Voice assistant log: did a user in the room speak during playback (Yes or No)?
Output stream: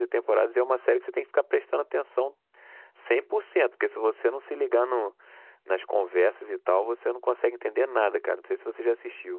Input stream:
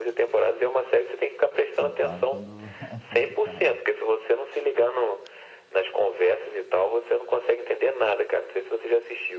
Yes